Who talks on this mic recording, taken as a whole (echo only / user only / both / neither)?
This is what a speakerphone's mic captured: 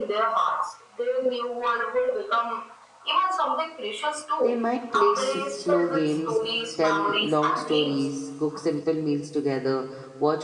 both